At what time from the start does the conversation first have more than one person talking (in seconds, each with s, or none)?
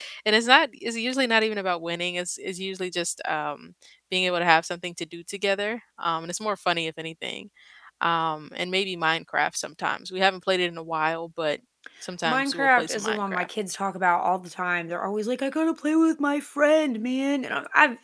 12.3 s